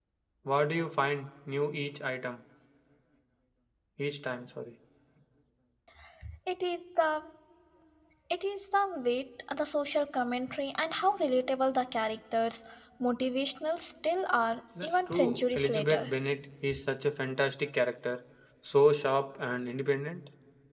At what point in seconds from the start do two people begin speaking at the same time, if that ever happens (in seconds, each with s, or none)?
14.8 s